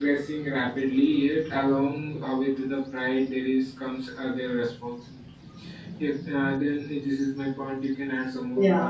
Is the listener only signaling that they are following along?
No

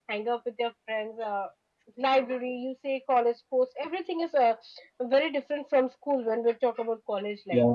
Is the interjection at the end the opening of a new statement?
Yes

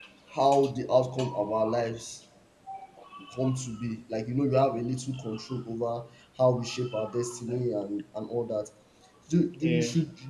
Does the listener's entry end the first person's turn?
No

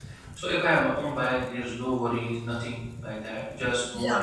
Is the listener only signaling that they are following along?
No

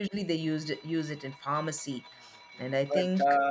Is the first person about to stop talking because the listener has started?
Yes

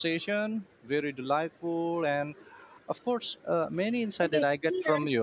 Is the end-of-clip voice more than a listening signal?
Yes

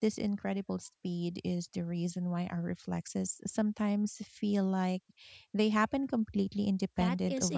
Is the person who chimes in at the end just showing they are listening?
No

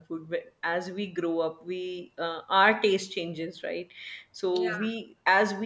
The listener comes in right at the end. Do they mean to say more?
No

